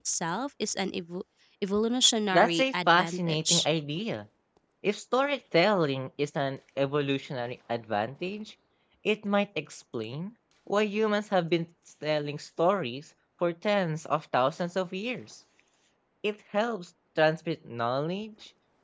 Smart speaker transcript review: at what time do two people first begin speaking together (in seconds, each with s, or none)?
2.3 s